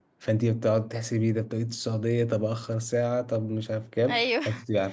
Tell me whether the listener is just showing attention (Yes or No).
Yes